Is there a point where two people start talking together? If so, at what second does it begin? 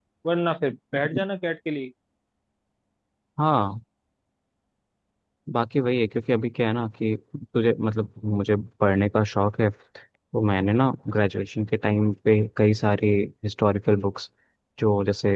none

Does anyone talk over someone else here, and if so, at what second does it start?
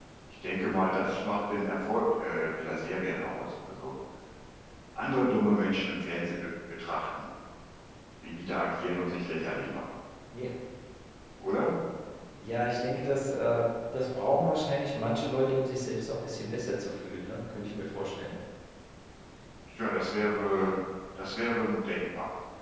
none

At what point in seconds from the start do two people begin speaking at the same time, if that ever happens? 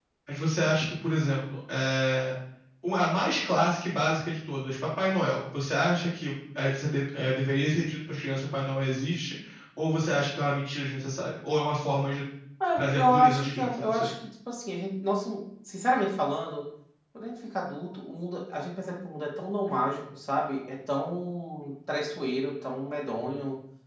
13 s

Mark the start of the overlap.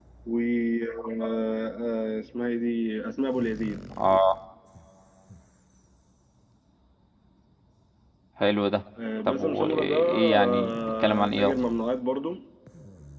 9 s

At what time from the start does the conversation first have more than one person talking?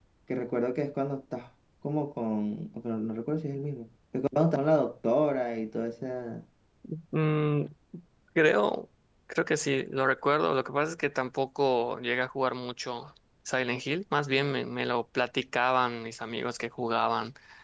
none

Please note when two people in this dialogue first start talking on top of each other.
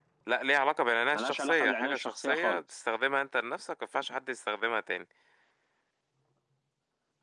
1 s

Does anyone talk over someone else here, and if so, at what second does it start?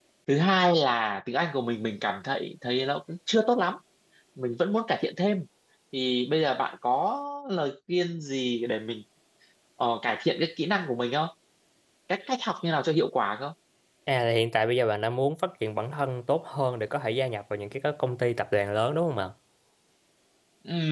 none

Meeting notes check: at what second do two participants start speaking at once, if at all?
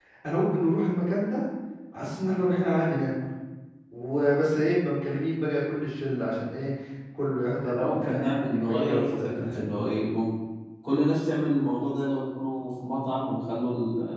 8 s

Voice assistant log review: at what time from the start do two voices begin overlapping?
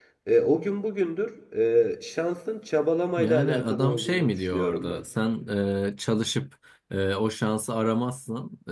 3 s

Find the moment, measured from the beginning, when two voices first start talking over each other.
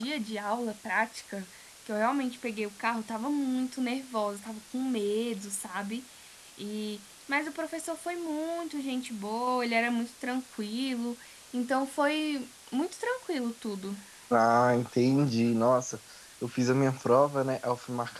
none

